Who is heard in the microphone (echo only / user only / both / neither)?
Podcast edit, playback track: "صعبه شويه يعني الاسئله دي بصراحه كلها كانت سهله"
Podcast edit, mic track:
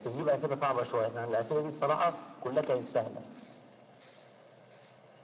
echo only